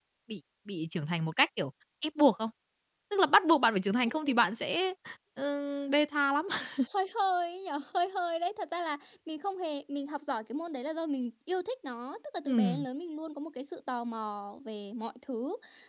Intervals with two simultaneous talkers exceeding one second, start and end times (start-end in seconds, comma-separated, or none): none